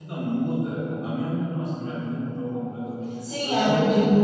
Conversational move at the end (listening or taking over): taking over